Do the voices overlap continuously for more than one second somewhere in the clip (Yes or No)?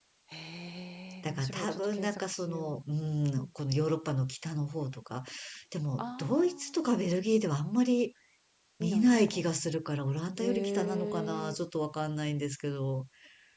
Yes